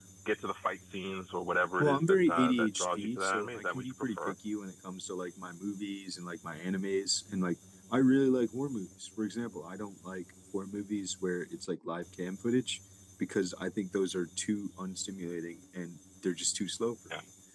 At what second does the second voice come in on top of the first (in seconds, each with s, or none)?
1.8 s